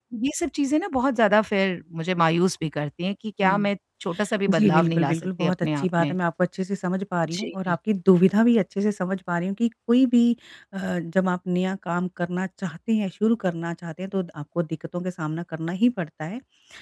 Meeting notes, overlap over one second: present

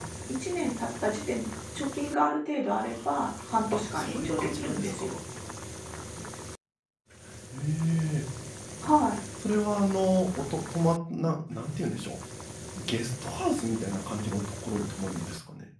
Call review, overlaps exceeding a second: present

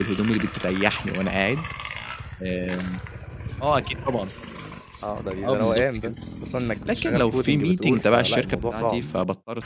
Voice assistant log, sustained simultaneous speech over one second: present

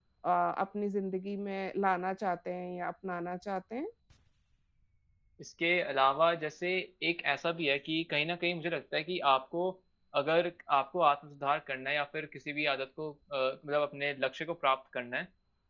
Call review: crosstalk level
none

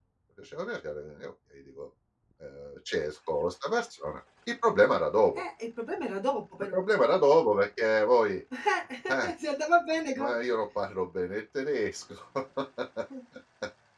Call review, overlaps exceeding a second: none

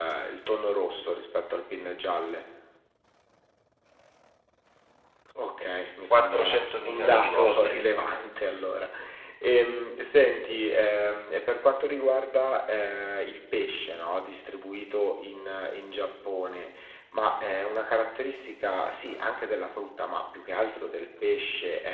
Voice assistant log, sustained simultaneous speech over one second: present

